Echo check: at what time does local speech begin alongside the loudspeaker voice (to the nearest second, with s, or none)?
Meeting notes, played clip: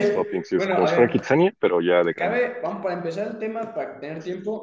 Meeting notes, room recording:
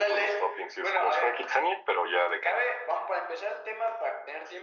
none